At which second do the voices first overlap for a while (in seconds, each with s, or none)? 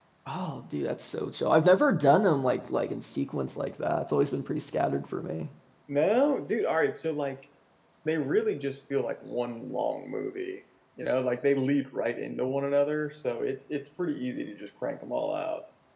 none